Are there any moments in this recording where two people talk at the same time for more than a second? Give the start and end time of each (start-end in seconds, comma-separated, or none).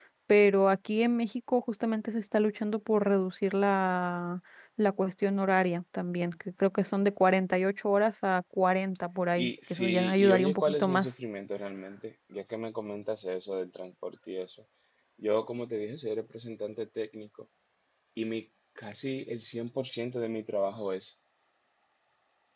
9.4-11.1